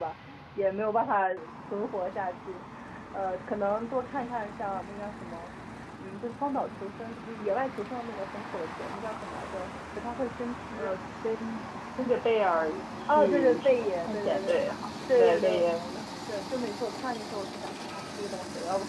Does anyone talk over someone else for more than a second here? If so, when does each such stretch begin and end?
13.1-14.7

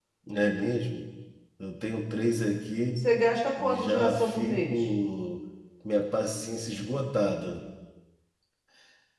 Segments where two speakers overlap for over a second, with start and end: 3.6-4.9

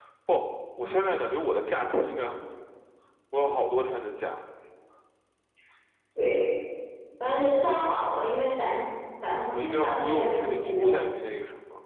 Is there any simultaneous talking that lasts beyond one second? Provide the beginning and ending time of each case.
9.5-10.9

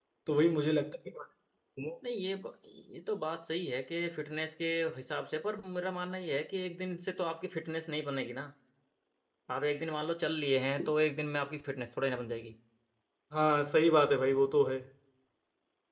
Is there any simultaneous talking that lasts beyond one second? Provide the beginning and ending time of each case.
none

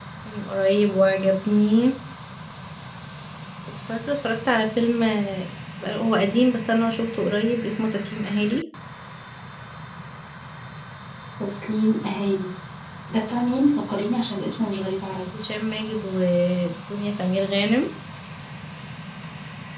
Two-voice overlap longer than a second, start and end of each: none

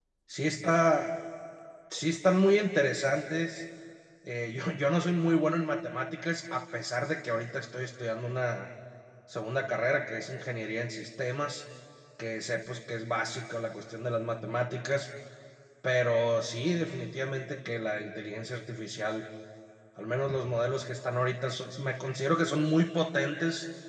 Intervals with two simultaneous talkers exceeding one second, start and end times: none

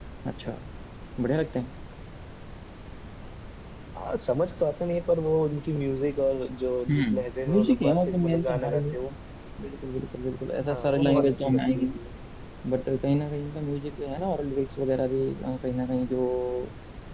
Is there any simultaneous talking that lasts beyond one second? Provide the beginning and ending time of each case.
6.9-8.9, 10.7-12.0

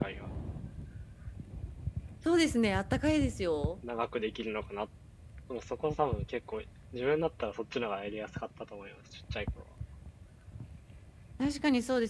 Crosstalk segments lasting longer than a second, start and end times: none

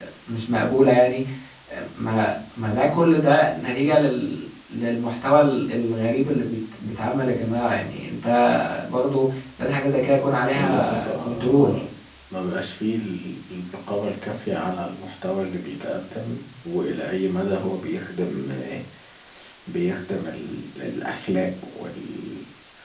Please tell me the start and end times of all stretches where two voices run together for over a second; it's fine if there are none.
10.6-11.8

